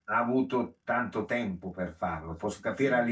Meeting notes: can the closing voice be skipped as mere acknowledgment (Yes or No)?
Yes